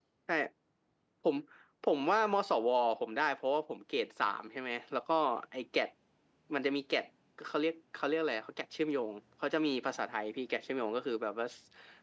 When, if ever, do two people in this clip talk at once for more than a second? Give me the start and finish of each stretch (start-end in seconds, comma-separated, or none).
none